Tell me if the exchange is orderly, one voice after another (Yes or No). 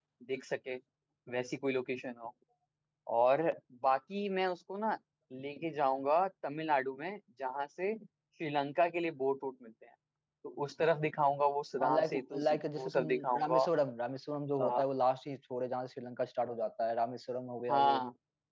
No